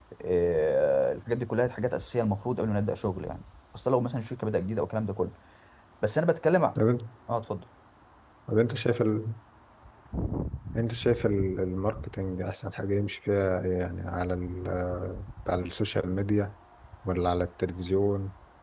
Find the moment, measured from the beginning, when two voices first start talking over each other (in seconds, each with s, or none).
none